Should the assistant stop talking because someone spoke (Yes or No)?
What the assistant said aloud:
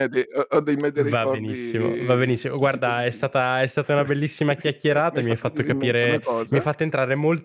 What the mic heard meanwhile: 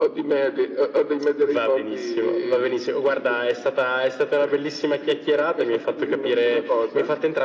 No